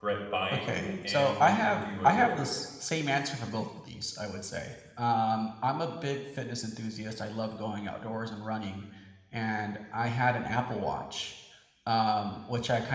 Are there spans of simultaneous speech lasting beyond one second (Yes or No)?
Yes